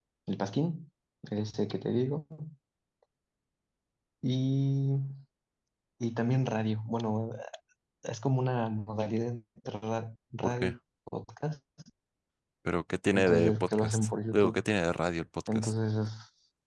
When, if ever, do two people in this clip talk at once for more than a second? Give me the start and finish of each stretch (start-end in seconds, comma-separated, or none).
13.1-14.6